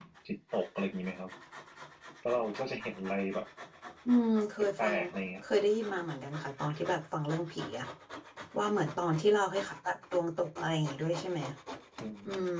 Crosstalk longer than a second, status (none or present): none